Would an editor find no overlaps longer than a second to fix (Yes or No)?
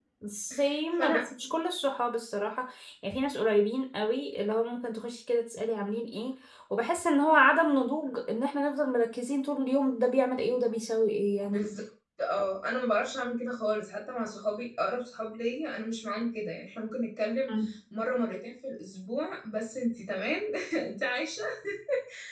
Yes